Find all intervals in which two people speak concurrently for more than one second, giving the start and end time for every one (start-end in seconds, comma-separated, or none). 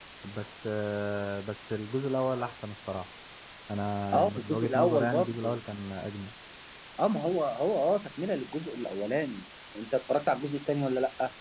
4.1-5.6